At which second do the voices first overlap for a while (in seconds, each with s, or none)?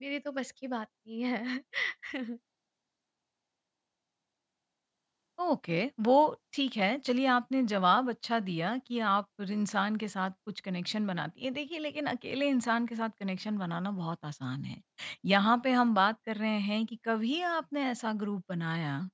none